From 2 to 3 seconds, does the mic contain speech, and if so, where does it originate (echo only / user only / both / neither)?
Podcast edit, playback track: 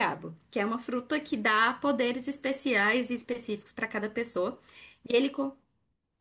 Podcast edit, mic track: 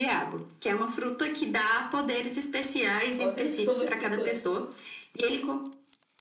echo only